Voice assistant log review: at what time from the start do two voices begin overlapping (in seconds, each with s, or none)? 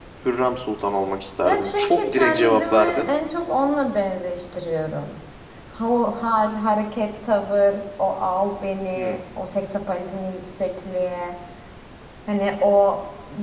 1.4 s